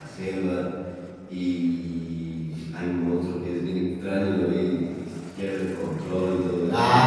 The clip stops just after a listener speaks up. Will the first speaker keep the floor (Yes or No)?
No